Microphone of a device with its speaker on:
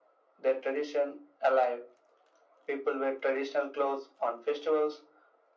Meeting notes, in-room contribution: none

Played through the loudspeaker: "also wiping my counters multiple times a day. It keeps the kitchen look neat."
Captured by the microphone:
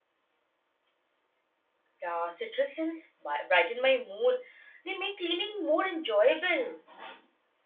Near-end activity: present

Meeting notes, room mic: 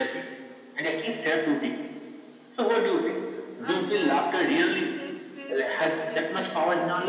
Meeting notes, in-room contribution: present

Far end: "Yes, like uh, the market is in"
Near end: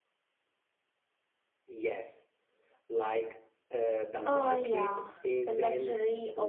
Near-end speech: present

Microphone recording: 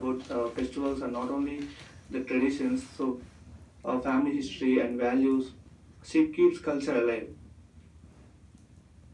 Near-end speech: none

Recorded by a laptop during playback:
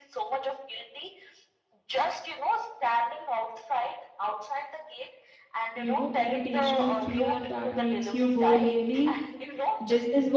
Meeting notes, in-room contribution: present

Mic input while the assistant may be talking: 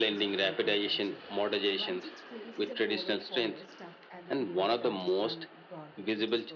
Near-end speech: present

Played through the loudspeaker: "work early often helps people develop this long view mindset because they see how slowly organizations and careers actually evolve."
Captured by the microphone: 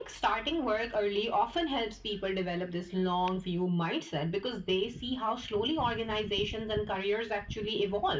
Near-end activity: none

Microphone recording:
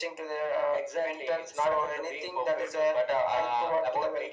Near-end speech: none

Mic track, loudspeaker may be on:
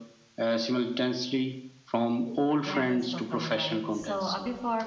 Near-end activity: present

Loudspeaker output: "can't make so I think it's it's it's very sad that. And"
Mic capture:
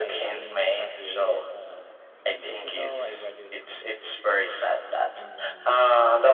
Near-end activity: present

